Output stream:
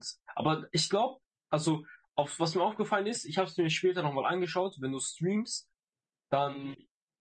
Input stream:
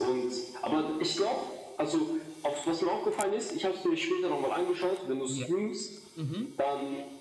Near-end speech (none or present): present